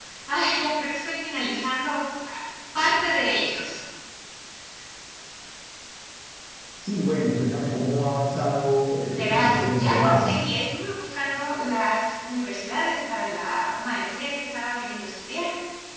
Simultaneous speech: Yes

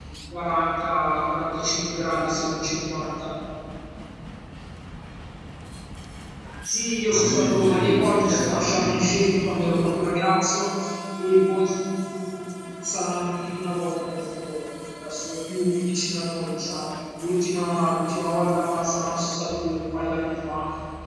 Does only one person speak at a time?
No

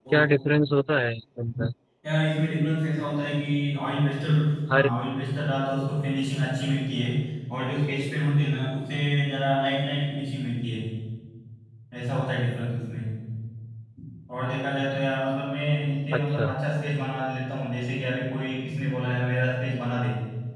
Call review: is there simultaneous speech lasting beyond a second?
No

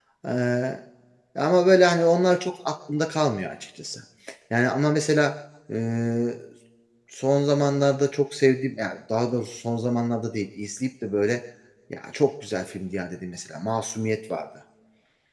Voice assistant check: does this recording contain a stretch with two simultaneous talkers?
No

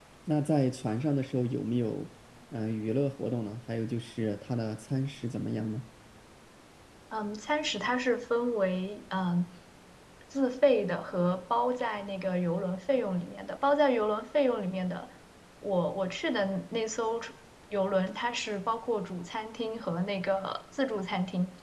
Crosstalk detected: No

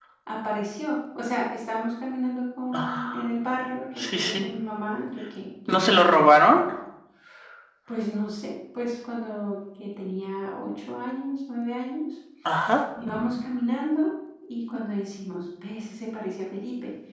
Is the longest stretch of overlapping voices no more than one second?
Yes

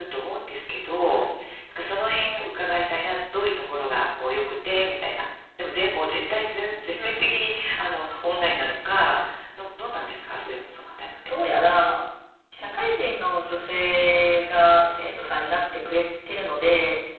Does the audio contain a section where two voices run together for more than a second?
No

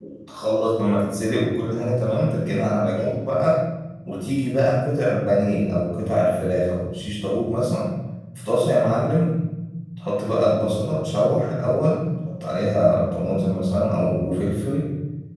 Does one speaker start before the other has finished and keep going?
No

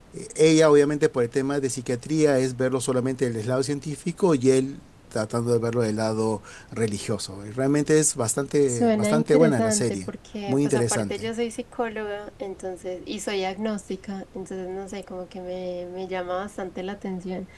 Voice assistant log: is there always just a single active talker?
No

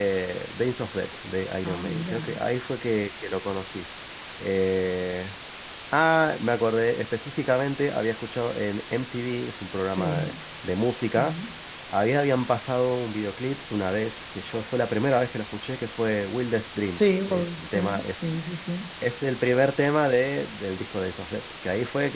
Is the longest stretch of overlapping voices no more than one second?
No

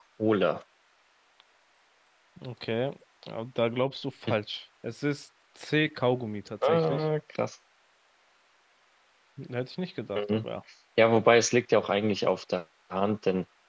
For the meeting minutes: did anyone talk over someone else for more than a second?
No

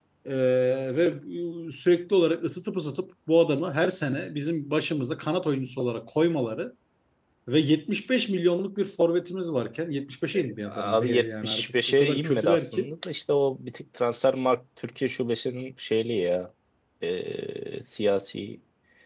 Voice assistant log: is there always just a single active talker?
No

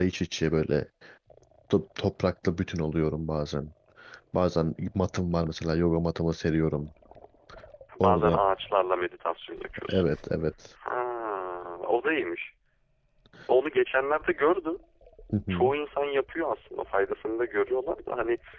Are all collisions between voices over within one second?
Yes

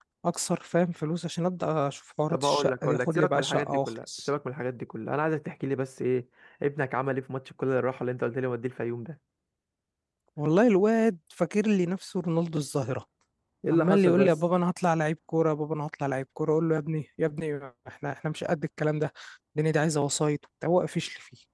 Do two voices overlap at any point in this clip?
Yes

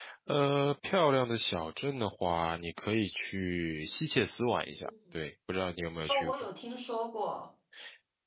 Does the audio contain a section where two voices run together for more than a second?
No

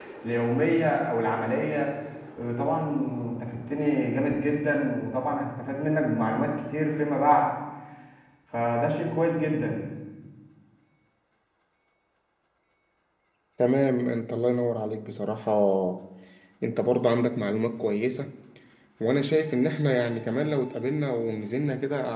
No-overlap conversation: Yes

